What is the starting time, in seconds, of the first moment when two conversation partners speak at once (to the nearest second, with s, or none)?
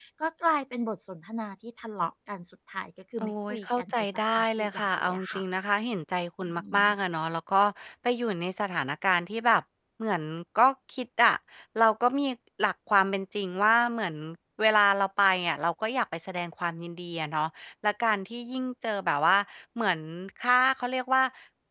3 s